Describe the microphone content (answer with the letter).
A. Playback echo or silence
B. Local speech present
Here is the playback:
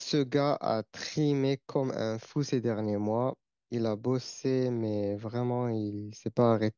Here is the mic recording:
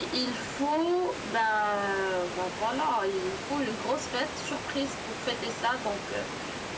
B